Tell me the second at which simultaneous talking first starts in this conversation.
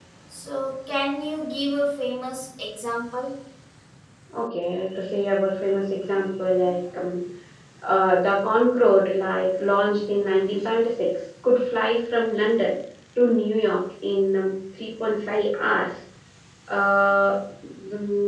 none

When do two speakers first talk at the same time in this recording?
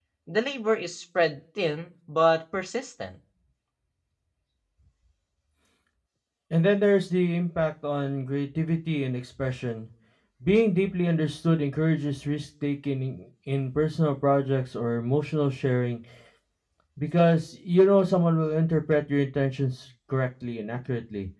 none

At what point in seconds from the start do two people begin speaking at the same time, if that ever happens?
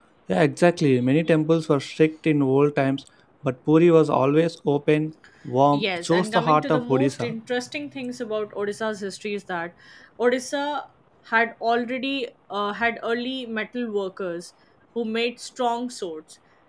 5.7 s

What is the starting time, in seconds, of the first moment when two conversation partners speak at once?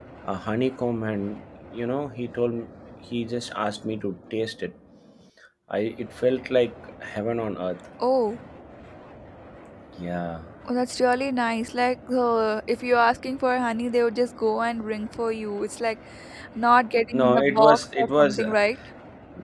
17.2 s

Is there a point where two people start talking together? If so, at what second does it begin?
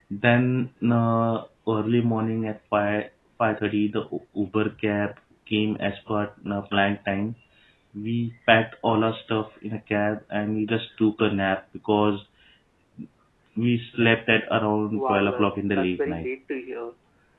14.9 s

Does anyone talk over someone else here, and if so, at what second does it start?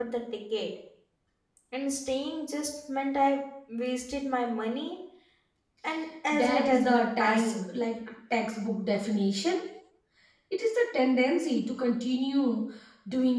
6.3 s

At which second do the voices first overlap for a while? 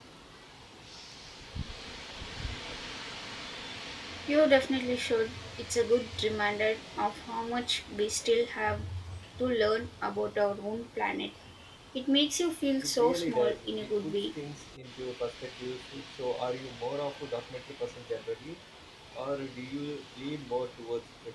12.8 s

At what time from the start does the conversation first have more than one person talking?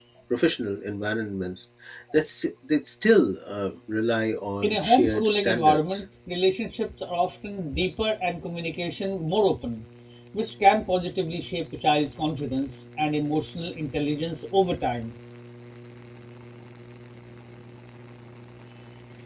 4.6 s

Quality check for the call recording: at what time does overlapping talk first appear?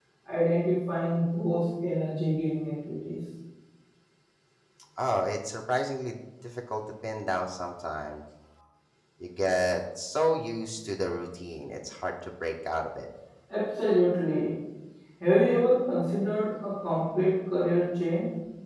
none

